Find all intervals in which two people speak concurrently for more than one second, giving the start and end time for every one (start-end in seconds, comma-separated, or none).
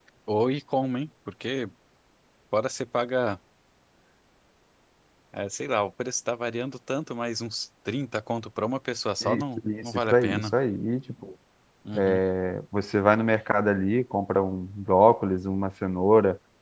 9.2-10.5